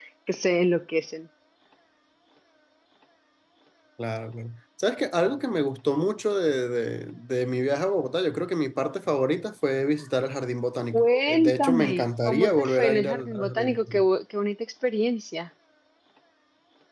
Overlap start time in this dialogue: 11 s

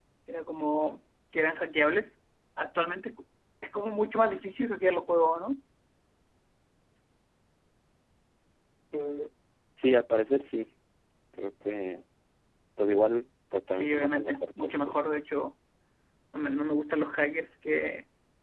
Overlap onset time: 14 s

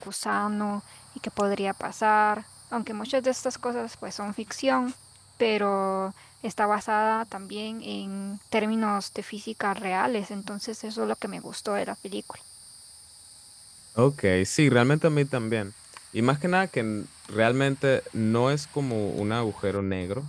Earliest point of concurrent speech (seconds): none

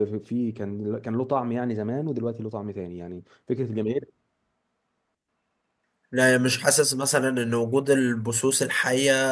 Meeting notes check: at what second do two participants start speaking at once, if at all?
none

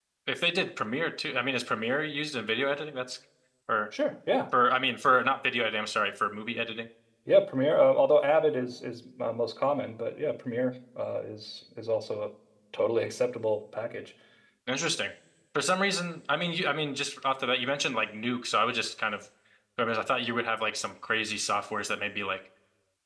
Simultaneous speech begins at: none

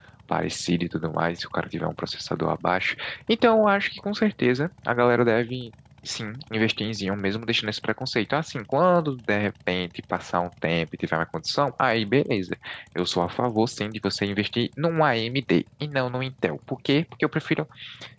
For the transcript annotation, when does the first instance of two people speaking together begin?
none

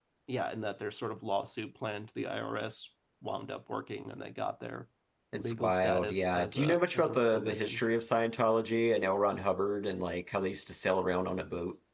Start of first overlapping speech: 5 s

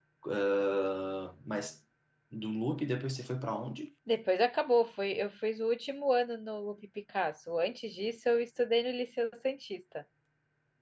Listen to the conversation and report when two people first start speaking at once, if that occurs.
none

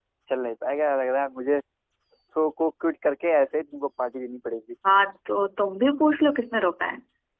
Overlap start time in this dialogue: none

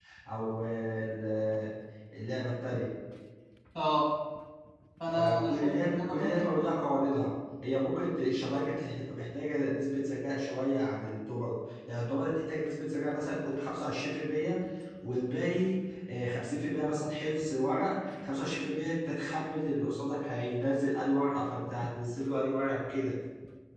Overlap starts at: 5 s

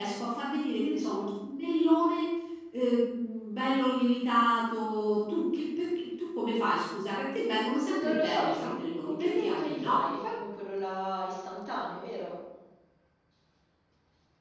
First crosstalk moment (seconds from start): 8 s

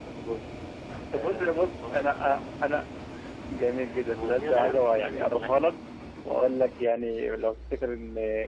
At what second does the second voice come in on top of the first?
1 s

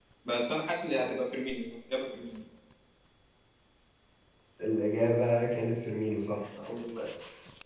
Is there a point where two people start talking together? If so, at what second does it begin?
none

